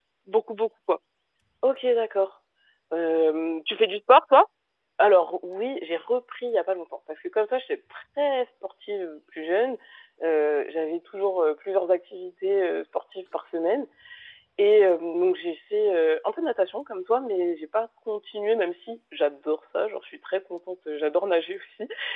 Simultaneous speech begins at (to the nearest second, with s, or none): none